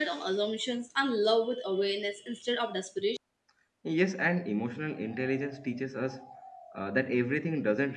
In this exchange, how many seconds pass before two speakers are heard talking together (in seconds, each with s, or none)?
none